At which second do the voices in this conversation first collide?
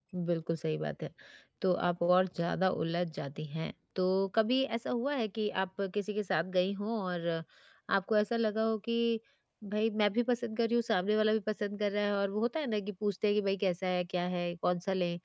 none

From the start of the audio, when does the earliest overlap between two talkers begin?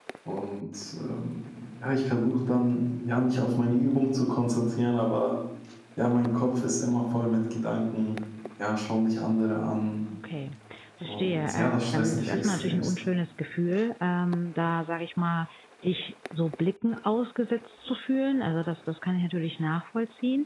11 s

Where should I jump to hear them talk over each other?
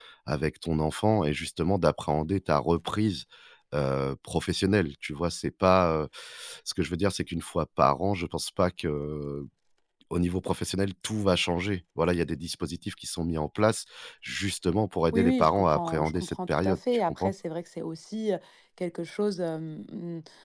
15 s

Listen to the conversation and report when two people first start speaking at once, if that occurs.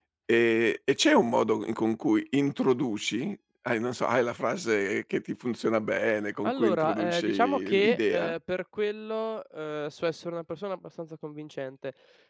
6 s

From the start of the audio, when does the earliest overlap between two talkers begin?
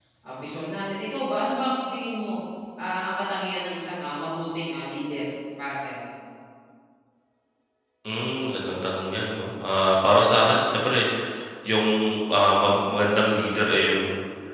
none

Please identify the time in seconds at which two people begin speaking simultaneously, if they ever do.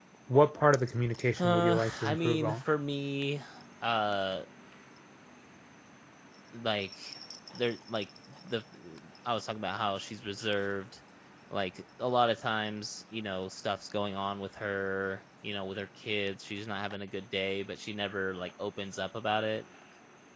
1 s

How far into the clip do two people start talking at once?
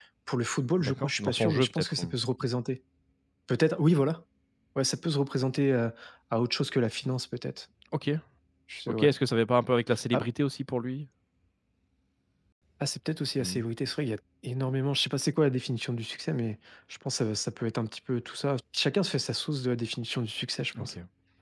1 s

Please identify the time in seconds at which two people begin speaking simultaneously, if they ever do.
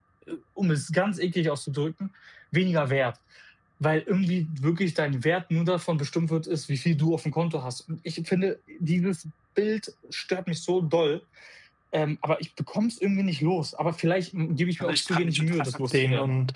15 s

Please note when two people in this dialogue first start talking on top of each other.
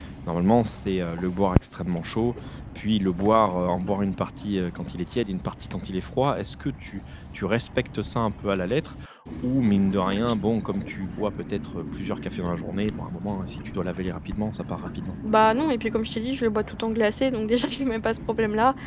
none

